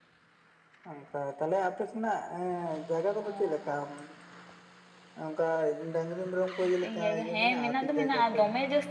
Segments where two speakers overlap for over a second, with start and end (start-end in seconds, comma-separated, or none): 6.8-8.4